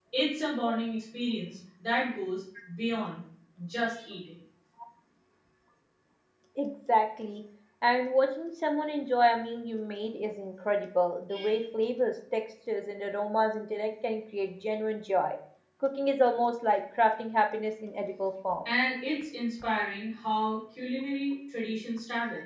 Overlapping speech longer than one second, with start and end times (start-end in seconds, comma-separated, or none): none